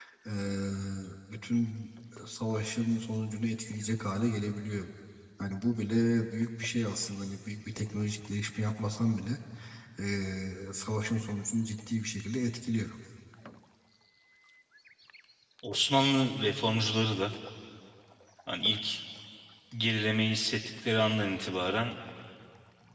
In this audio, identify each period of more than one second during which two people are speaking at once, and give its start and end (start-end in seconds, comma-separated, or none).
none